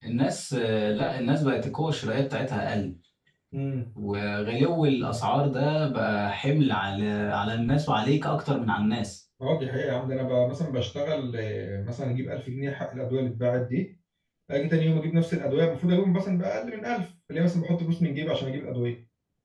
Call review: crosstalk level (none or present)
none